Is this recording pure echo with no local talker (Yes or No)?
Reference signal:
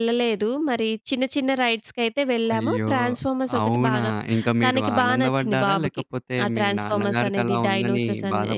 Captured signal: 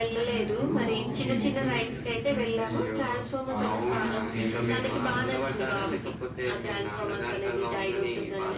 No